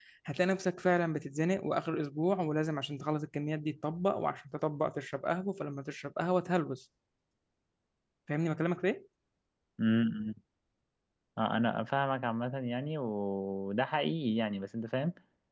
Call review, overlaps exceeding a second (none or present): none